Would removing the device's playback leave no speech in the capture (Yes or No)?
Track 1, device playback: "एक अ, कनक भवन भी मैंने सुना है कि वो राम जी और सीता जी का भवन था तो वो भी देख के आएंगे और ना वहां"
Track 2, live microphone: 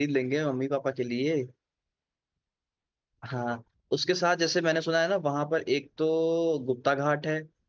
No